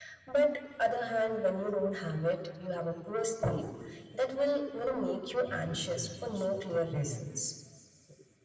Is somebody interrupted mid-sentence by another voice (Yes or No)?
Yes